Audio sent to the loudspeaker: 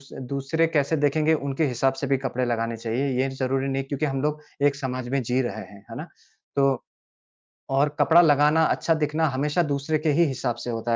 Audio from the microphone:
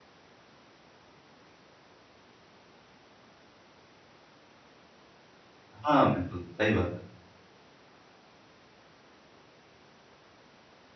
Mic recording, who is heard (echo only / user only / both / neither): user only